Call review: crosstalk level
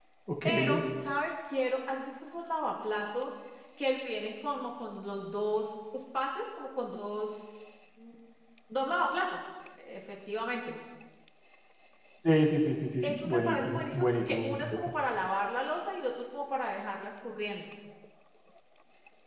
present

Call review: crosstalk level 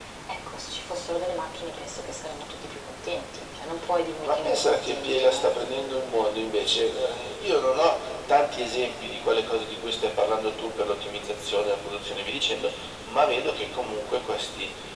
present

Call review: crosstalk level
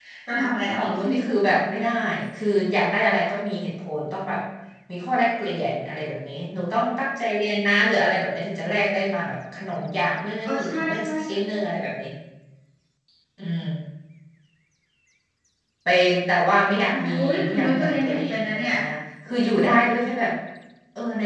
present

